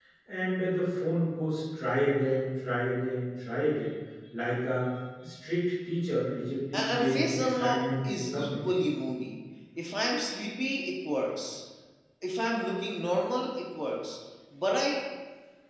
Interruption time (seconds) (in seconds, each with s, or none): 6.7 s